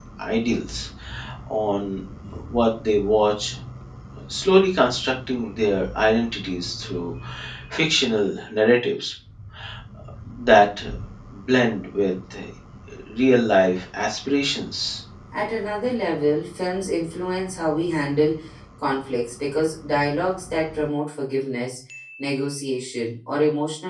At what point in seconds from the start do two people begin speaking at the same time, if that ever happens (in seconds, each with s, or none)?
none